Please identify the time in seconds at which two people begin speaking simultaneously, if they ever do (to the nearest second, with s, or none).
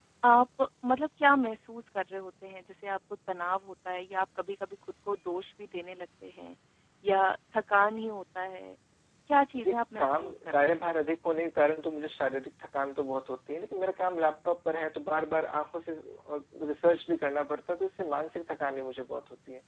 10 s